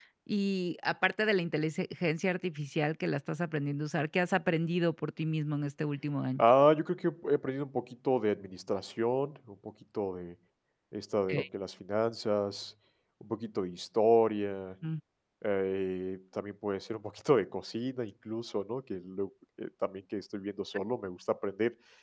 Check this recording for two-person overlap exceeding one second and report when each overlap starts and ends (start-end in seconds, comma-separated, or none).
none